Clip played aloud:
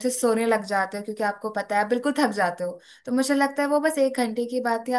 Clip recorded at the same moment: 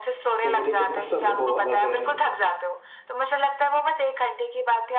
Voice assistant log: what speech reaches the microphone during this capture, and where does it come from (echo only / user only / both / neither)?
both